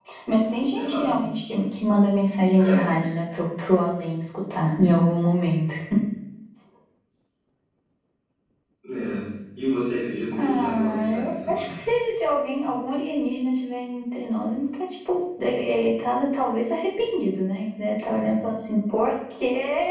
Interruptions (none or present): present